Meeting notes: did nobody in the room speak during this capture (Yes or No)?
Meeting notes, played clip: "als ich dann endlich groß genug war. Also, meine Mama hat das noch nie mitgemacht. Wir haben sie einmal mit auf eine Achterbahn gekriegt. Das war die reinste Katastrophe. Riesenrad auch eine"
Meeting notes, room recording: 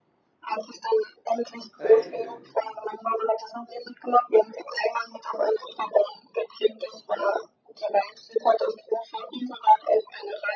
No